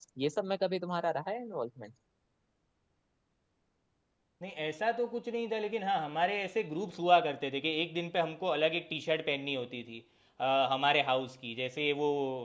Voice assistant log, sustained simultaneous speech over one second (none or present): none